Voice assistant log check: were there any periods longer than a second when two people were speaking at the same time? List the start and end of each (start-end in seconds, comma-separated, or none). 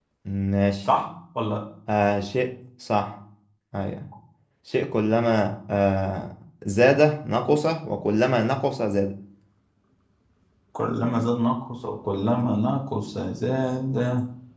none